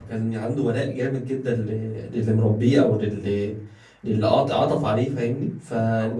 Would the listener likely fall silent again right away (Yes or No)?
Yes